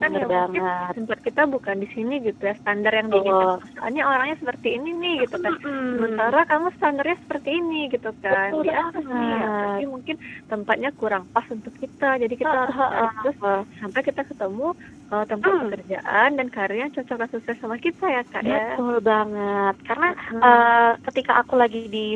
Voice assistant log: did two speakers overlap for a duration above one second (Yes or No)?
Yes